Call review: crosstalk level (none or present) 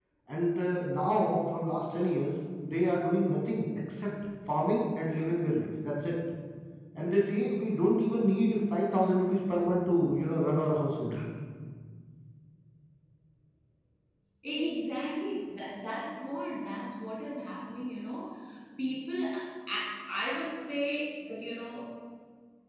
none